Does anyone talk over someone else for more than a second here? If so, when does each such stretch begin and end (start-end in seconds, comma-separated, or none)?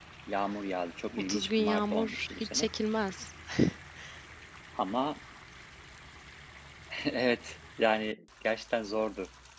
1.3-2.7